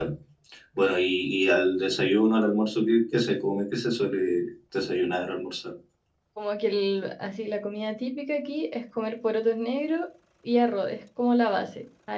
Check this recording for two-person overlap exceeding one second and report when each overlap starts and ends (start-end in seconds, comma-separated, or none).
none